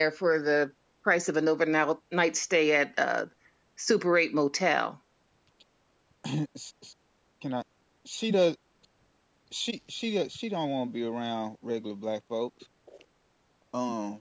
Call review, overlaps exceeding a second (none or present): none